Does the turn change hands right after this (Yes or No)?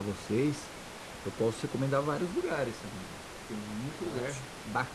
No